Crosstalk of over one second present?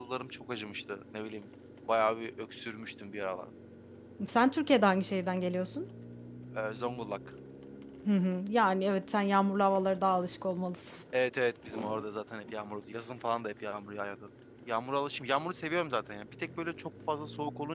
No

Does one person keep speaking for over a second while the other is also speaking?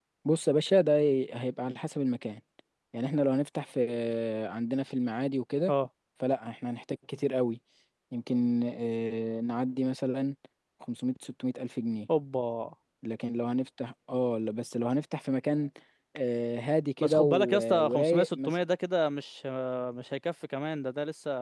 Yes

